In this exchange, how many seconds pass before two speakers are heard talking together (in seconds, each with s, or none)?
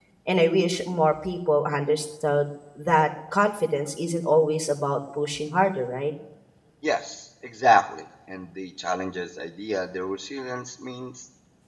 none